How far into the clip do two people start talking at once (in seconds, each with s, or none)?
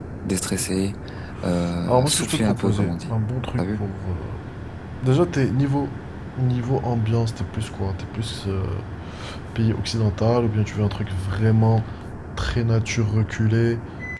1.9 s